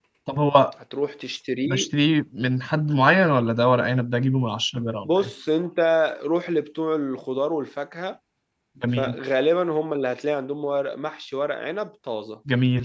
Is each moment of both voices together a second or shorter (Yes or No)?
Yes